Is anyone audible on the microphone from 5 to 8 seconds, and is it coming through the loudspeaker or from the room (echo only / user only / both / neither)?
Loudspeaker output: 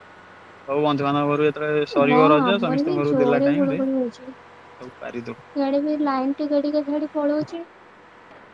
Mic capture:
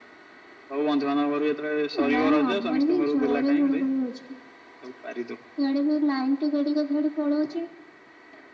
echo only